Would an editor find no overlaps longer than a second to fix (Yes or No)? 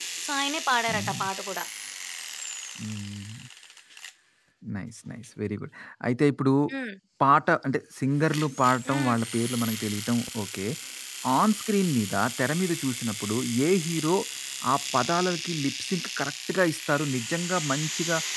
Yes